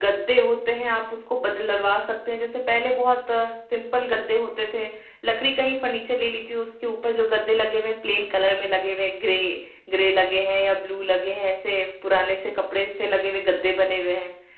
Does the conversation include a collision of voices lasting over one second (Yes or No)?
No